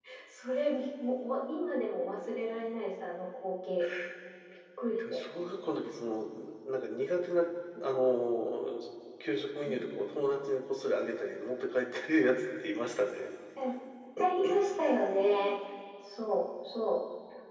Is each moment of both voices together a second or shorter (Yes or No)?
Yes